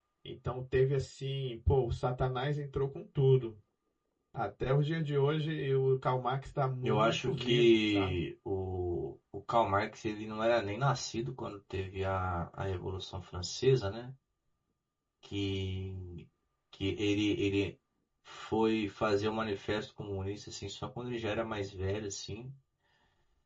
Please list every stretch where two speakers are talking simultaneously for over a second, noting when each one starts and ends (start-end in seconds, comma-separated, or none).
6.8-8.2